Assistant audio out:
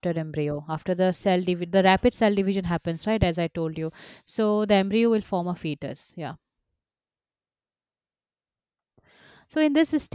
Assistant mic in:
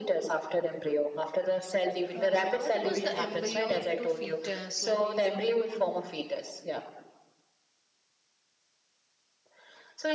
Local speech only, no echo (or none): Uh, what about the embryo to fetus? Like